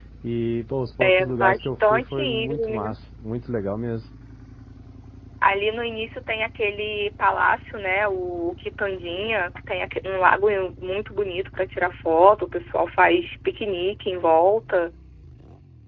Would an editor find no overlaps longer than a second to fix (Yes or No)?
No